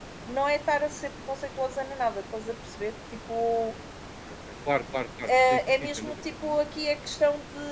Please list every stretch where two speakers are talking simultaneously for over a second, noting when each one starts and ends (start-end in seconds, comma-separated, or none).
5.3-6.6